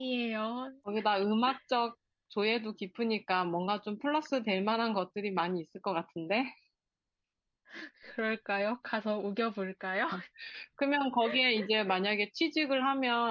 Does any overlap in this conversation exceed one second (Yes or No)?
No